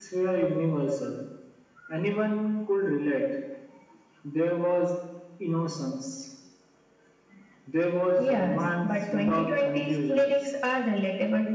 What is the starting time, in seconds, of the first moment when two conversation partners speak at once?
8.2 s

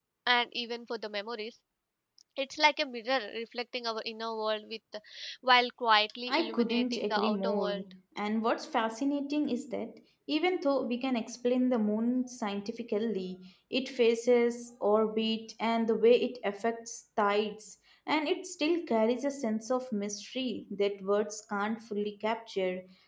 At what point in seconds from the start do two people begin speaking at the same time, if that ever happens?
6.3 s

